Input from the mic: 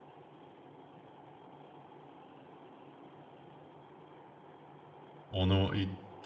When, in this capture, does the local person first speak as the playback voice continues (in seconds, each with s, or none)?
5.3 s